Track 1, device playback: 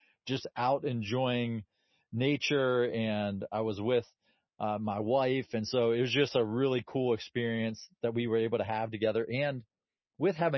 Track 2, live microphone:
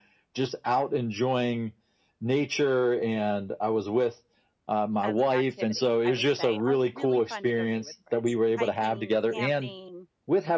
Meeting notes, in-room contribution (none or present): present